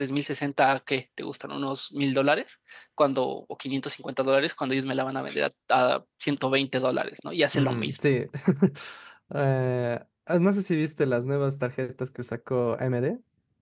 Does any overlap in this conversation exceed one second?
No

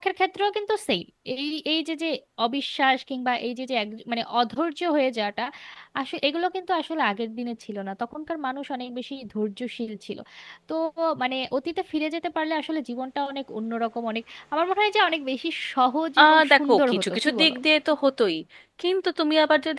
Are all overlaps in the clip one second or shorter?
No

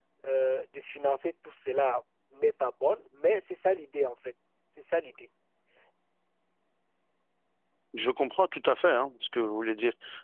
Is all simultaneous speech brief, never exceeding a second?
Yes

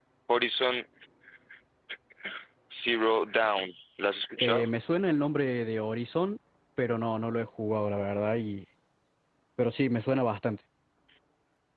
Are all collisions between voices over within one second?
Yes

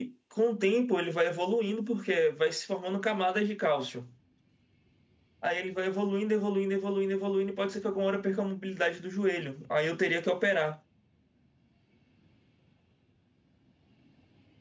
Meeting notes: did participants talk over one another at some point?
No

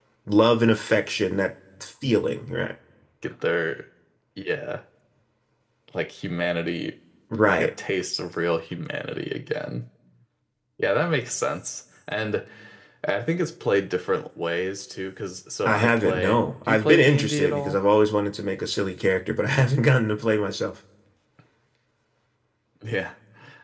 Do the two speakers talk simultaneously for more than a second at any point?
Yes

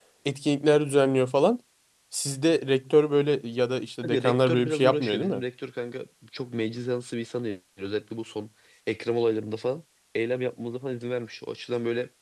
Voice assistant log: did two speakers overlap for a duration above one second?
Yes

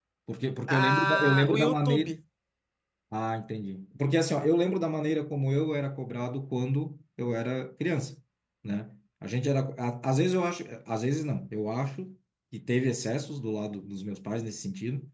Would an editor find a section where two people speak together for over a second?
Yes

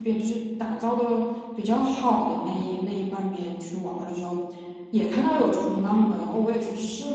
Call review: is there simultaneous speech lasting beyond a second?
No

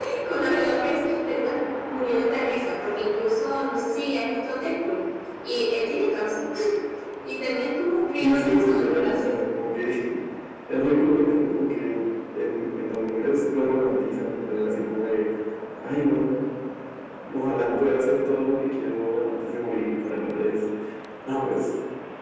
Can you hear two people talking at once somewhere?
Yes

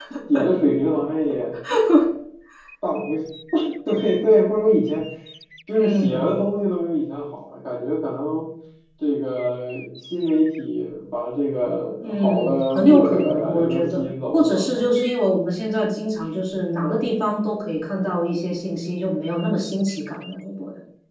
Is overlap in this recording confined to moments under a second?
No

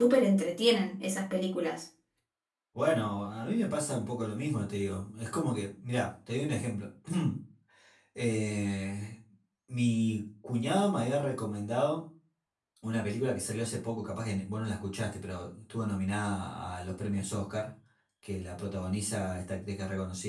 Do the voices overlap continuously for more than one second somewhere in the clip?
No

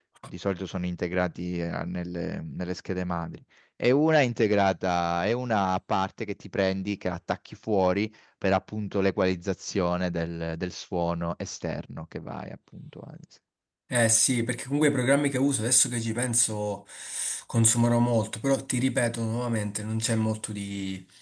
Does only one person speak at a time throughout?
Yes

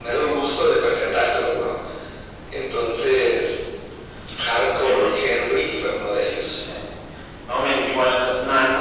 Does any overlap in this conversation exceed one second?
No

